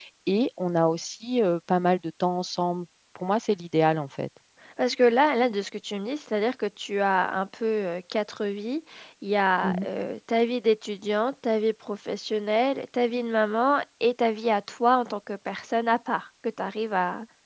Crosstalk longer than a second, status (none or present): none